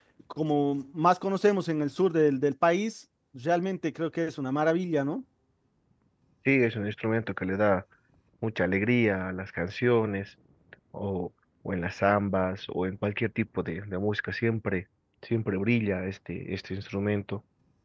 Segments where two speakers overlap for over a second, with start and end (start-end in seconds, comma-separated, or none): none